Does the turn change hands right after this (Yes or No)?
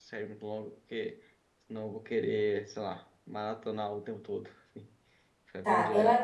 Yes